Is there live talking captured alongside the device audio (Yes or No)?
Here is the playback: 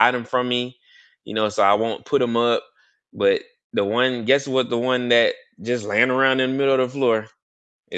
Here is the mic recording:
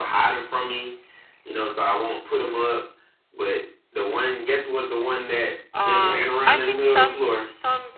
Yes